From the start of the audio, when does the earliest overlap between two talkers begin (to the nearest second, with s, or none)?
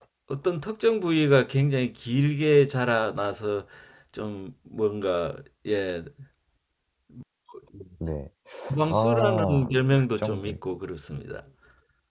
9 s